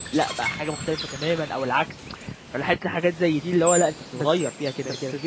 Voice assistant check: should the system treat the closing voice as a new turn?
Yes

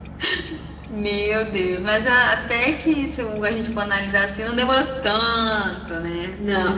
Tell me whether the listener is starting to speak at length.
Yes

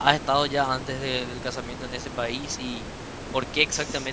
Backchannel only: Yes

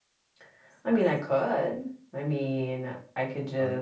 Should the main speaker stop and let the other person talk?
No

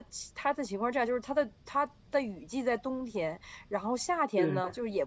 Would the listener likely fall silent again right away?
Yes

